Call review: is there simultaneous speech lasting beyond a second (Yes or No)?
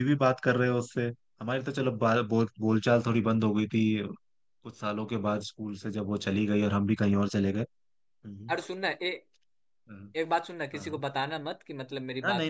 No